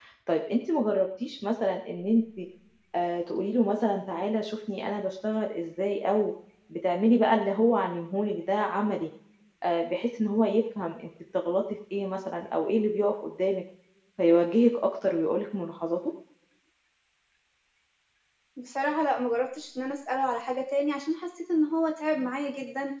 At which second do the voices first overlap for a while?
none

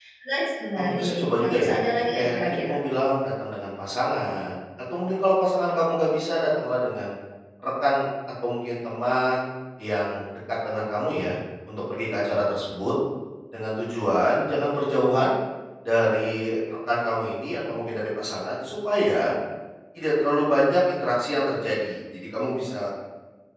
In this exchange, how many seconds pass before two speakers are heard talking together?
0.8 s

